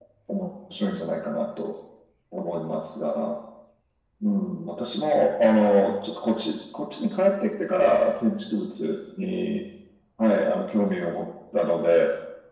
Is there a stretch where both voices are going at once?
No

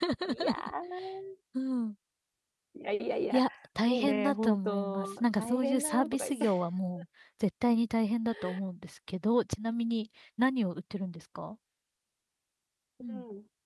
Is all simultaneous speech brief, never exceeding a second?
No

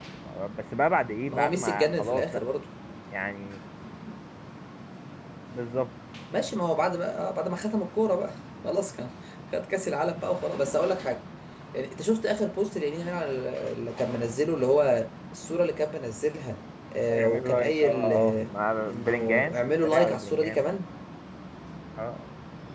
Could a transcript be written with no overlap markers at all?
No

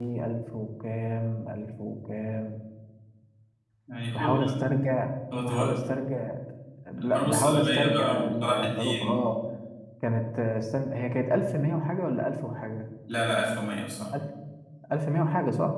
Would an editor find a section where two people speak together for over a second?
Yes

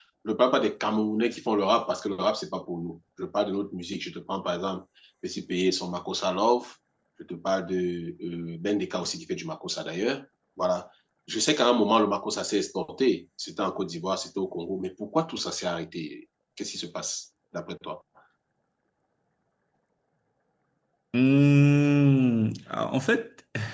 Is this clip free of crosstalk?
Yes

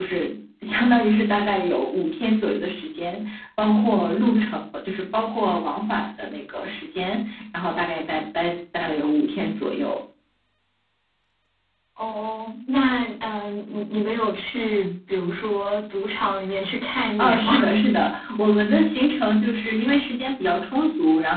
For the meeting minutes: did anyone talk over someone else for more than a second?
No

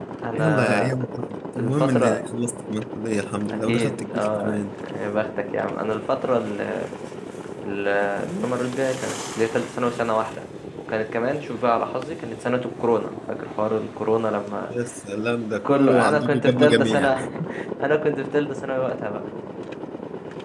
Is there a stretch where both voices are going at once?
Yes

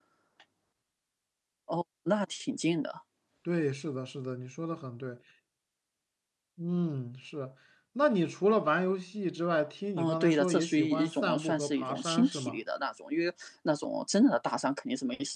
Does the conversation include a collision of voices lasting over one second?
Yes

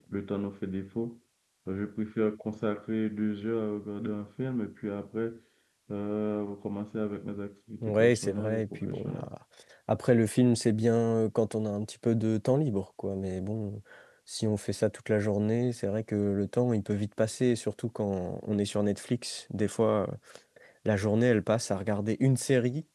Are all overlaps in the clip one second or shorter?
No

